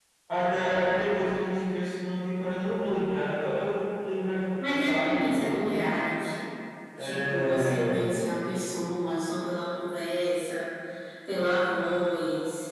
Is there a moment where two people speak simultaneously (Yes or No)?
Yes